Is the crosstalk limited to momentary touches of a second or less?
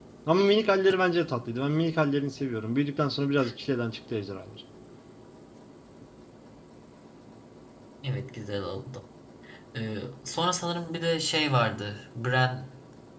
Yes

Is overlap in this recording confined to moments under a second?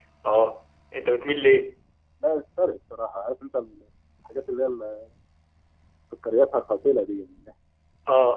Yes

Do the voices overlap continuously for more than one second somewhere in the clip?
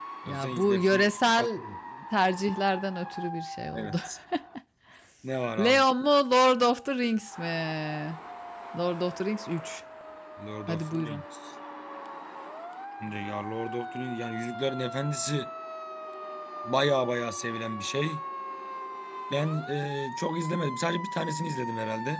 Yes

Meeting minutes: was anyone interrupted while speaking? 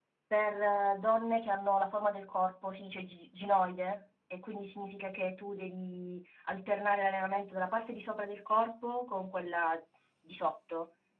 No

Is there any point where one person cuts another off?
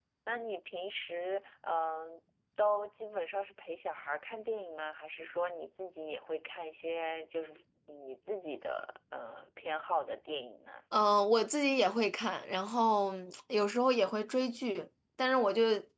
No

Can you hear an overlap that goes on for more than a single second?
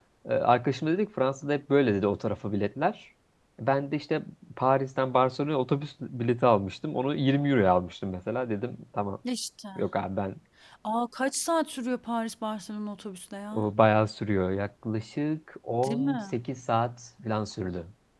No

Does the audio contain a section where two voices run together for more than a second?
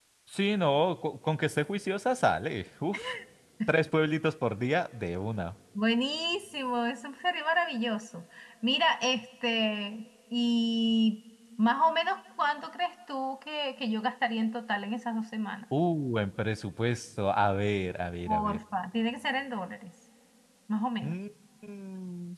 No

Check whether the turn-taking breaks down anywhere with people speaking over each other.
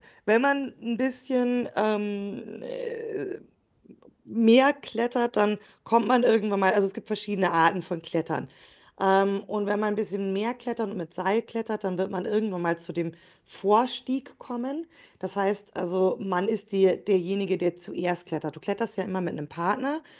No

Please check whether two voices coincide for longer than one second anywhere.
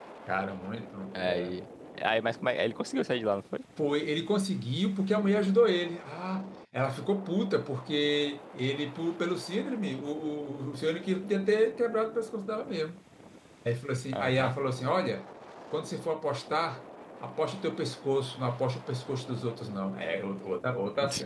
No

